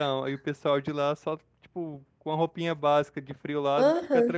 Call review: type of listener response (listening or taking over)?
taking over